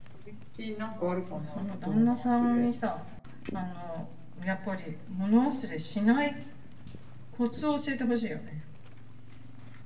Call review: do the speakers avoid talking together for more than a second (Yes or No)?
No